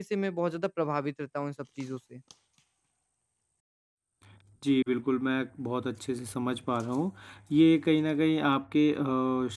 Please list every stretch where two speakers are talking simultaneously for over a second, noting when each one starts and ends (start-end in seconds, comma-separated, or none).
none